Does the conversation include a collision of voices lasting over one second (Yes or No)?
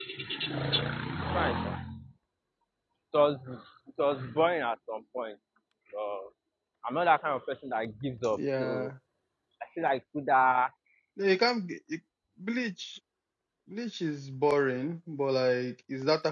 No